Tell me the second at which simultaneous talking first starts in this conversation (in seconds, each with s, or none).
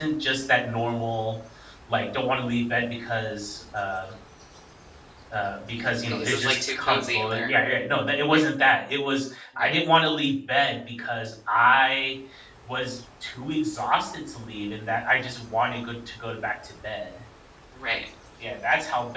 6.1 s